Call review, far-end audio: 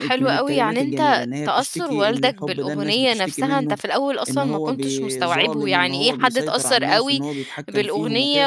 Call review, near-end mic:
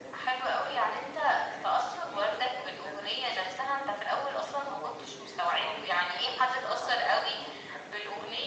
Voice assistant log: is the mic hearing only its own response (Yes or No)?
Yes